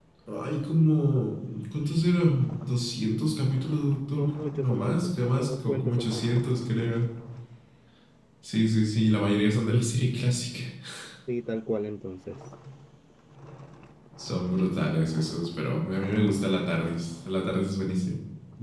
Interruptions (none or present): present